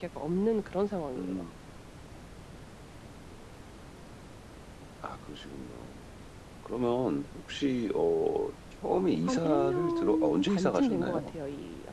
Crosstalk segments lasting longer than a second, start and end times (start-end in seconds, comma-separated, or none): 9.3-11.3